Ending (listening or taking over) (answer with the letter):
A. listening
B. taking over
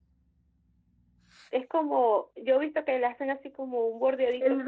B